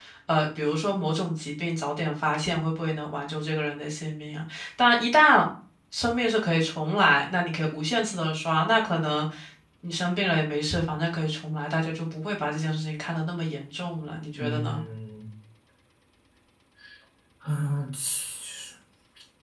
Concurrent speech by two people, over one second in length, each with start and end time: none

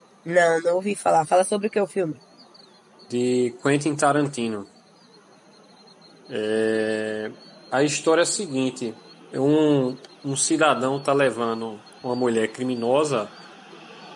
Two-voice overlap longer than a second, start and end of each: none

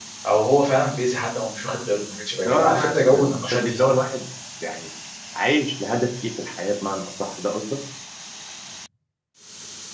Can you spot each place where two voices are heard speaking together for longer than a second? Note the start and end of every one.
2.5-3.9

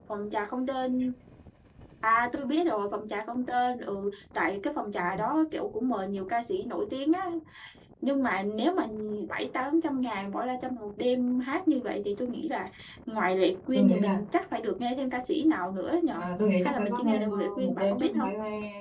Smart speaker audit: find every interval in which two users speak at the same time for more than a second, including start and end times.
16.6-18.3

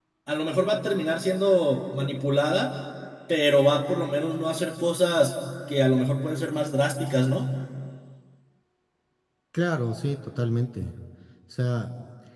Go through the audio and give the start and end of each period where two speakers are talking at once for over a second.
none

